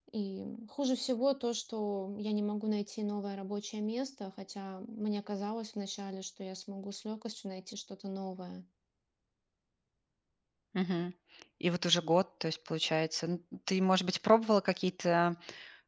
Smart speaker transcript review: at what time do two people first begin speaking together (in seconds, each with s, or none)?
none